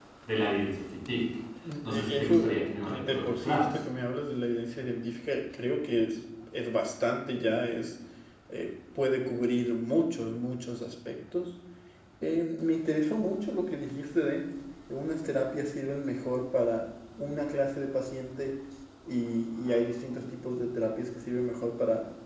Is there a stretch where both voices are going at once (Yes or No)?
Yes